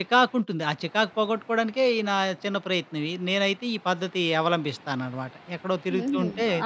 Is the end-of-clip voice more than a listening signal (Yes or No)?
Yes